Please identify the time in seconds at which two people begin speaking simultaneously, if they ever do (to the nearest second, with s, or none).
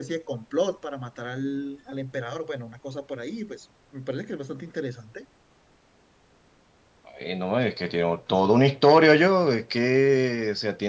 none